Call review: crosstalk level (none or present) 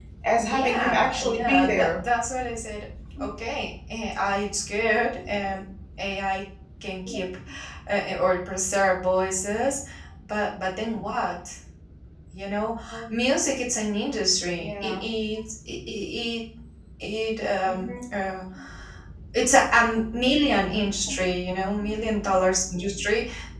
present